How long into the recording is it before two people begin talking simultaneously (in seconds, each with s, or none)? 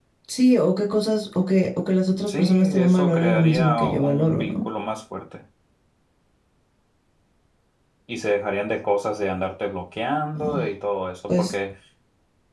2.3 s